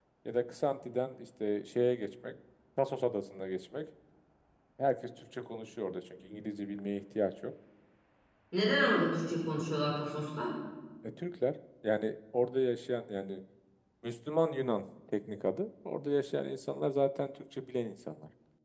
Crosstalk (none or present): none